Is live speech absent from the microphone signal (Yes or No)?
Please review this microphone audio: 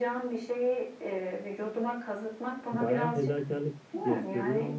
No